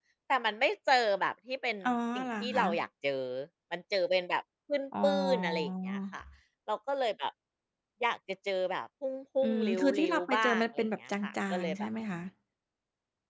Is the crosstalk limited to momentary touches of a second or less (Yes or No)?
No